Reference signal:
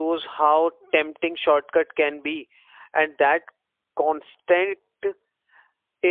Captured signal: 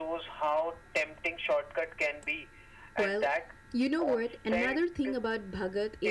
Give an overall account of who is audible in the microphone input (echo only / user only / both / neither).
both